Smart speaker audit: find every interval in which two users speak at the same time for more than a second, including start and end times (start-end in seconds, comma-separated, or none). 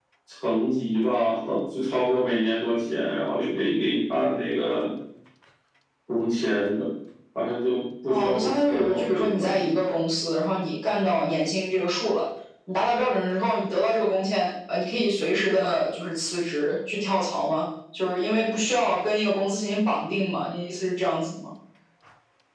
8.1-9.6